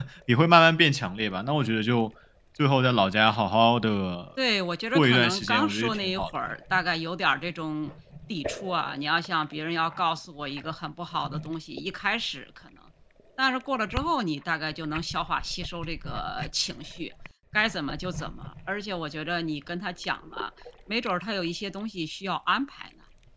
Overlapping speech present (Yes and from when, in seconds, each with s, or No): Yes, from 4.9 s